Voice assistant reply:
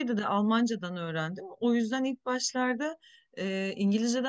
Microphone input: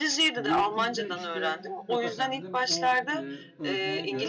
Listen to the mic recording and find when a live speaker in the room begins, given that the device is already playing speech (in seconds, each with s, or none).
0.4 s